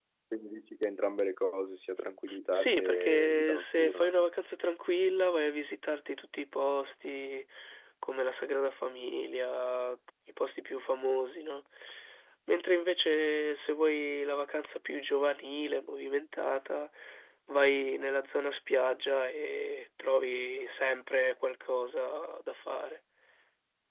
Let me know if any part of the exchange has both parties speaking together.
Yes, from 2.5 s

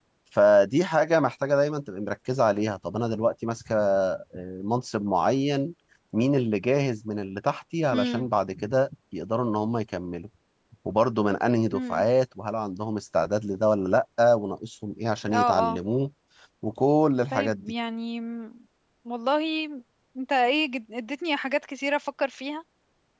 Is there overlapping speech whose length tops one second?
No

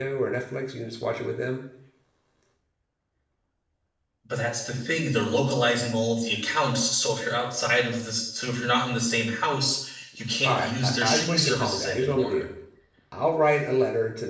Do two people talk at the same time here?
Yes, from 10.4 s

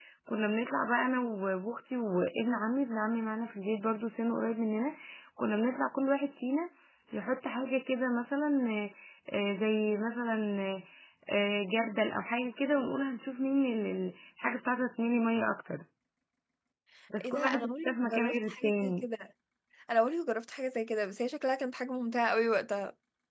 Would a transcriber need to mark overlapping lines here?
Yes, from 17.2 s

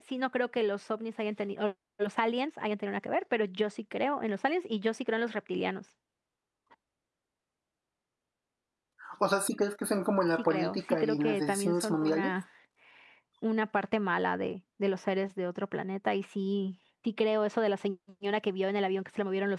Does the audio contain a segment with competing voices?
Yes, from 10.4 s

